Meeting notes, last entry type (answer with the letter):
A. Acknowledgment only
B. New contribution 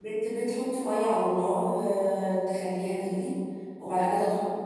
A